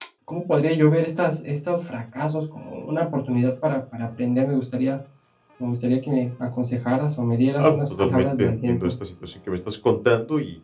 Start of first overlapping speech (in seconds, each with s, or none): 7.5 s